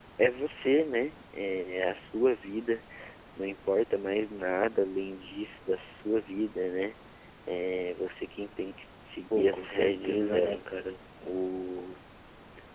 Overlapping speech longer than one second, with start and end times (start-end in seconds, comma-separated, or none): 9.3-10.7